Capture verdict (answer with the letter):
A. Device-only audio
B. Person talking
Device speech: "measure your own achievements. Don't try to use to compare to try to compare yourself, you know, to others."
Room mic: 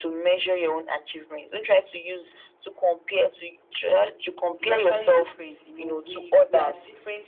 B